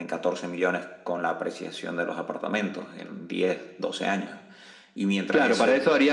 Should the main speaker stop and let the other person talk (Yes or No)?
Yes